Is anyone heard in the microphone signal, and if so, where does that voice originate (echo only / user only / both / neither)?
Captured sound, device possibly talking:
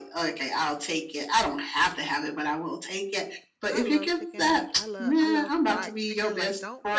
both